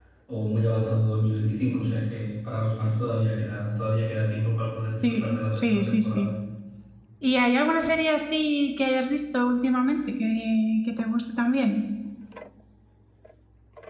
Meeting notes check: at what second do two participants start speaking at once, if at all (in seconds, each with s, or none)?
5.0 s